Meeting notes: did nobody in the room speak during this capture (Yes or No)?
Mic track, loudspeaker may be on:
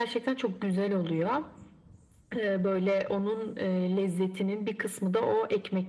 Yes